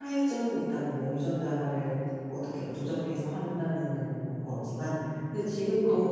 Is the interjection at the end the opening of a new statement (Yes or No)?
No